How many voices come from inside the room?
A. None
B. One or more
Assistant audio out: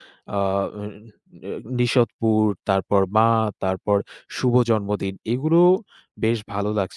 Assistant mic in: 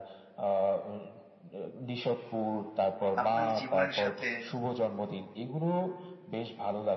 B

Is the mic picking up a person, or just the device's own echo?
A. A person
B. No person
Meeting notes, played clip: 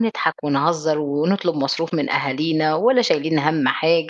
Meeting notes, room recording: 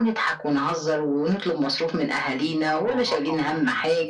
A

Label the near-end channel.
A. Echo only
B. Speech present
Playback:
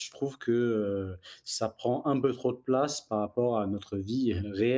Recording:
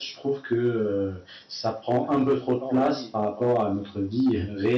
B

